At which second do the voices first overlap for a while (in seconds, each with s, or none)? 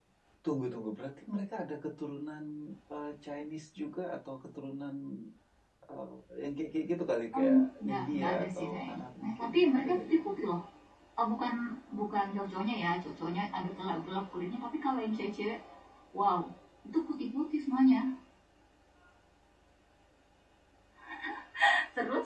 7.3 s